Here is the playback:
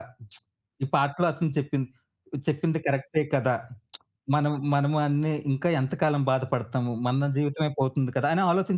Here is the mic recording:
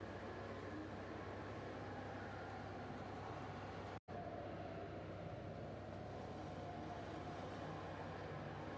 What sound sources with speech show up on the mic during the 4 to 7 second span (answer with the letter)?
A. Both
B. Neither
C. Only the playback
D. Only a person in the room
B